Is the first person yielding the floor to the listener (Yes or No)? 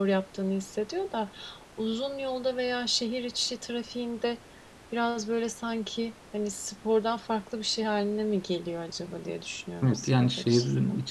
Yes